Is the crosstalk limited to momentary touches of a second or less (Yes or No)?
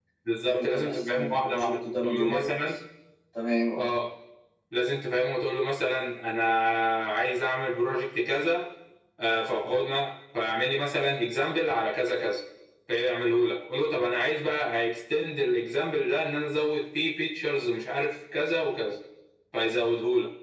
No